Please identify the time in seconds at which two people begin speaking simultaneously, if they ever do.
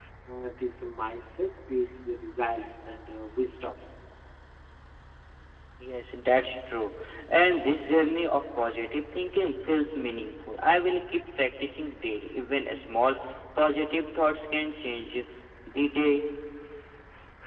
none

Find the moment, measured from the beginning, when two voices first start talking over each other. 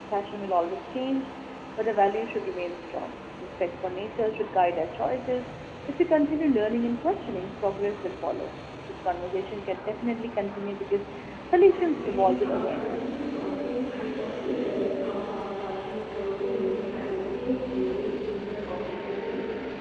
11.7 s

